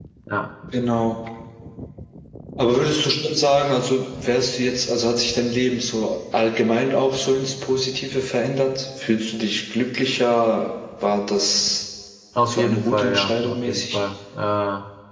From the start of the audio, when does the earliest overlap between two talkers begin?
12.5 s

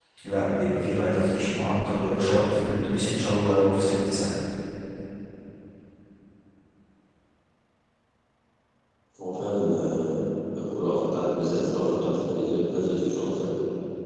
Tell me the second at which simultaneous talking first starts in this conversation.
none

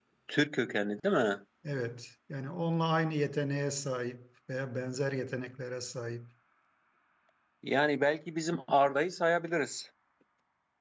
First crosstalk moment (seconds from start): none

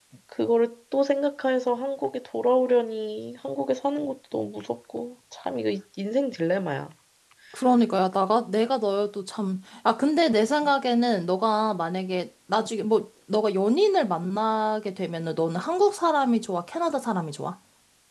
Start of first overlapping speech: none

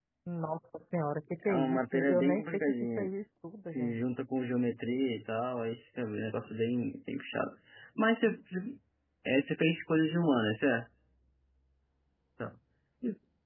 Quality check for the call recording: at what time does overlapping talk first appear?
1.4 s

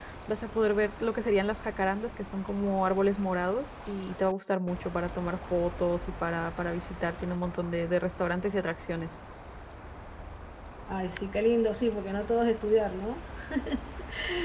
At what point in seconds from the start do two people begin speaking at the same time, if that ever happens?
none

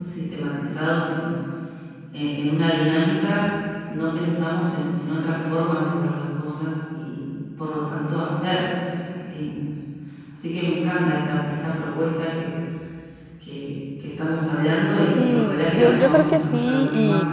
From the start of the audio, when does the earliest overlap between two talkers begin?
15.2 s

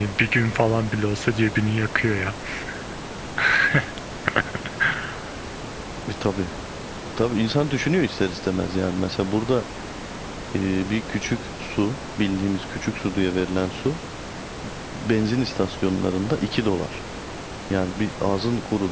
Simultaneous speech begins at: none

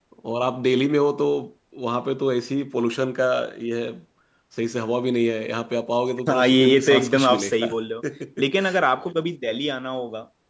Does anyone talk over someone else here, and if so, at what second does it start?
6.3 s

